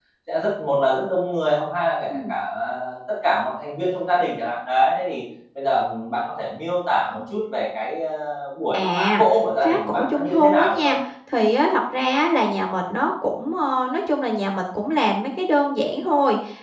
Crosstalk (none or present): present